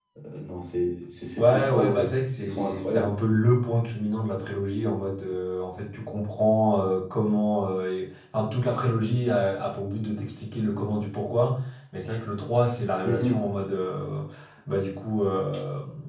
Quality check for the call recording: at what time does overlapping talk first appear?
1.4 s

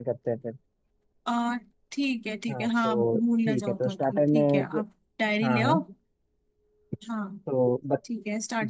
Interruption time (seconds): 2.5 s

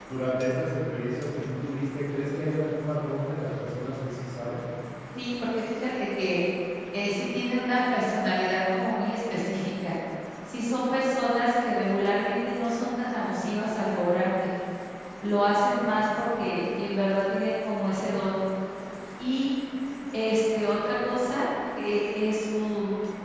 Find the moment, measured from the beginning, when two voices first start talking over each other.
none

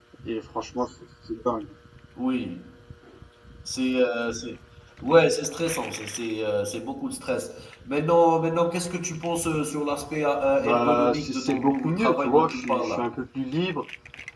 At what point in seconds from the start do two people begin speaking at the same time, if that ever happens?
10.6 s

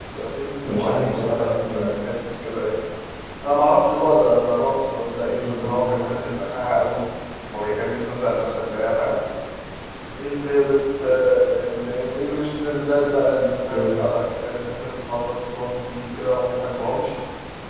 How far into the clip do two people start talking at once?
0.7 s

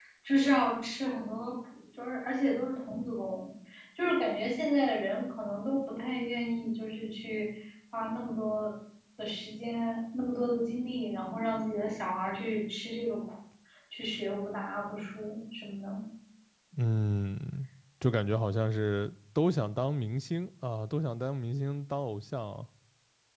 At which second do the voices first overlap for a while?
none

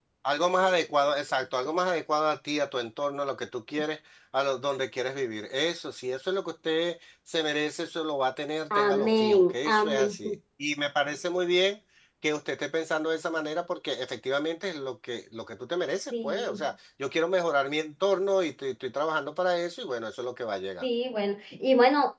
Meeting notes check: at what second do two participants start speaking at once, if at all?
8.7 s

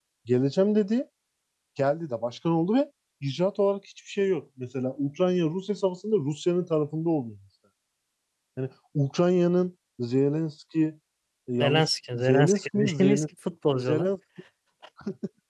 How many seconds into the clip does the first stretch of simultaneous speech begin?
11.6 s

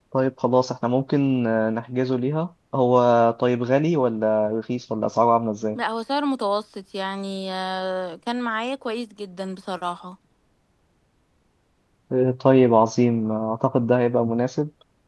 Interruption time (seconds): none

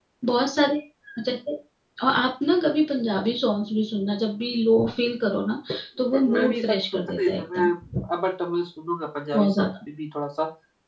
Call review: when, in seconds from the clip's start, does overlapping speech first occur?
6.1 s

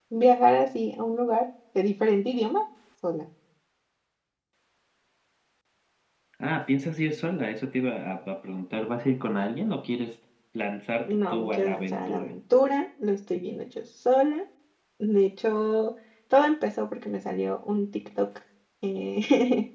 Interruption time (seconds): 11.0 s

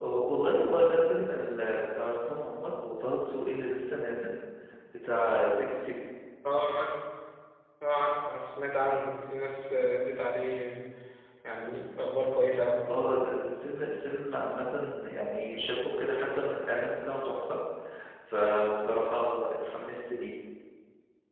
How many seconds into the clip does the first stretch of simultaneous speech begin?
none

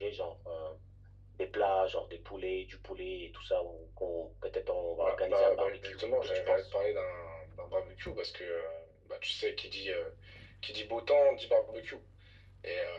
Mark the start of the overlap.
5.0 s

